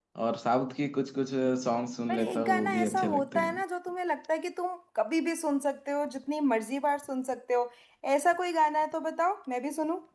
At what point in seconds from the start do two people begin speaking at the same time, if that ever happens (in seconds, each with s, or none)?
2.1 s